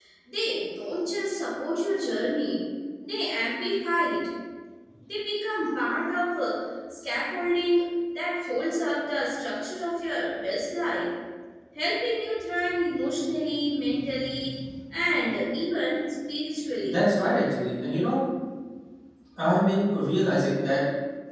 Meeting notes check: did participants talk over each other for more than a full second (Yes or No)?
No